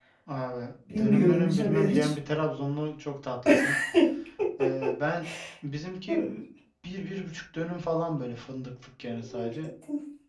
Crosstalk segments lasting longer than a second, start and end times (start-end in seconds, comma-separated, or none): 0.9-2.1